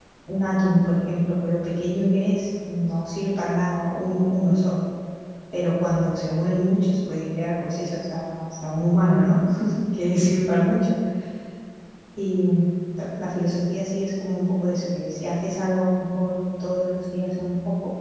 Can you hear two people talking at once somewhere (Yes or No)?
No